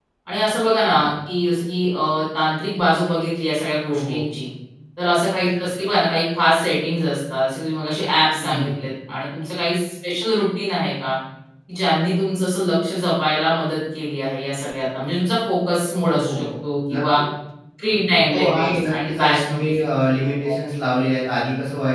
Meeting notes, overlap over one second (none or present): present